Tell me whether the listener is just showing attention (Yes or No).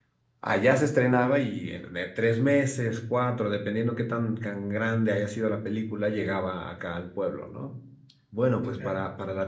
Yes